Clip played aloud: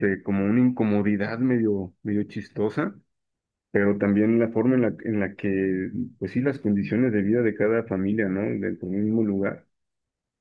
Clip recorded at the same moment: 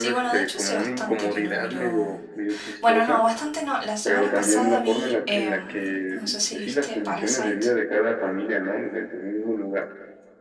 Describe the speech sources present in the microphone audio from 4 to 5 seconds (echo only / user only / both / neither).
both